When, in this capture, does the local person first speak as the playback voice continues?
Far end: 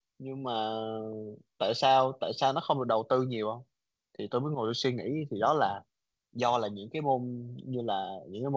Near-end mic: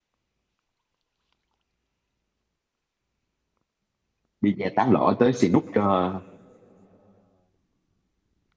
4.4 s

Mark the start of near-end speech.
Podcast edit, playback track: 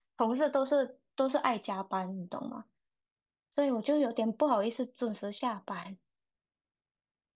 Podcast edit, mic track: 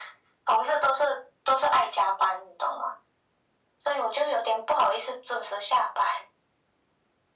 none

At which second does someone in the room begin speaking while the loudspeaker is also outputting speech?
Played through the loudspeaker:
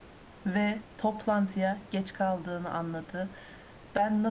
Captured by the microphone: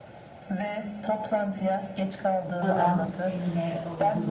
2.6 s

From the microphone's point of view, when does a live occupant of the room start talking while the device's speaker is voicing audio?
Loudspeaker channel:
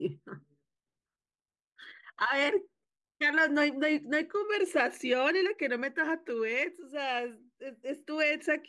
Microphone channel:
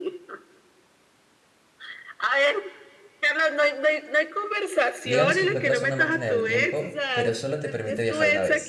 5.0 s

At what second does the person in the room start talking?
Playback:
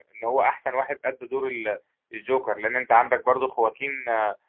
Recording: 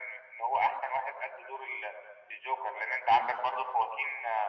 none

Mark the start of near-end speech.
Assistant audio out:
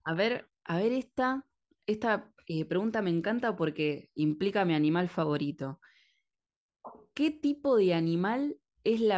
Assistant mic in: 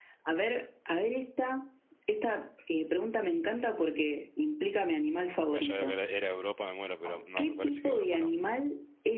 5.5 s

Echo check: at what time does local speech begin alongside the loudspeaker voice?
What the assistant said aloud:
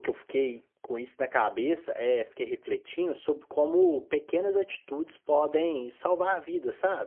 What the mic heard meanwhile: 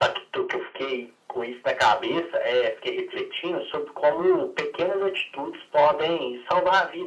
none

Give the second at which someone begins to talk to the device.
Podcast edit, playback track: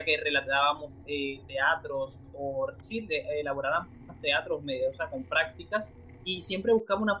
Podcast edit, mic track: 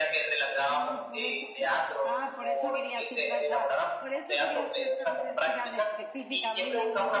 0.7 s

